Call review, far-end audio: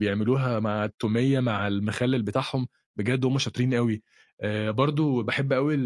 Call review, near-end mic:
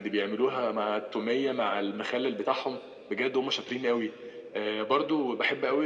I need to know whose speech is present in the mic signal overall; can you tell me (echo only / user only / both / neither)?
echo only